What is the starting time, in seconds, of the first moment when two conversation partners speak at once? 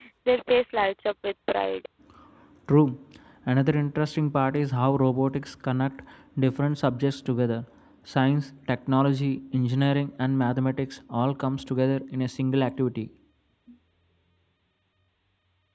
none

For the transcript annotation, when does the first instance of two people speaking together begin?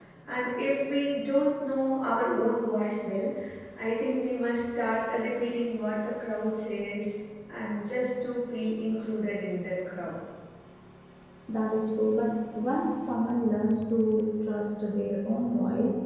none

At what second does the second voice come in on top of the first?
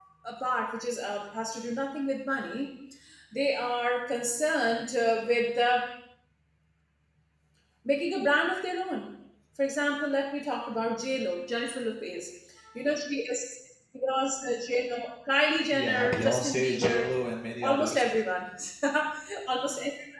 15.7 s

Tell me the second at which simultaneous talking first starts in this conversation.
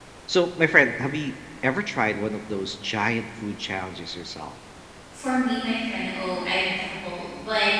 none

